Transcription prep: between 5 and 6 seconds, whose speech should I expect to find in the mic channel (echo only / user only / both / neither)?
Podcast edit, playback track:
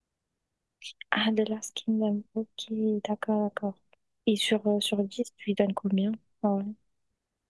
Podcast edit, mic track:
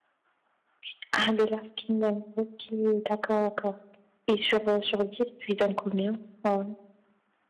echo only